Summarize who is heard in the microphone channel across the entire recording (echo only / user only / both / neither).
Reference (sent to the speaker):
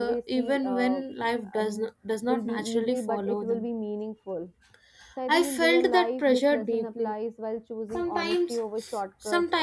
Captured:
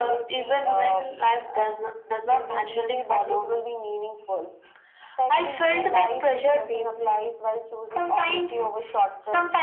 echo only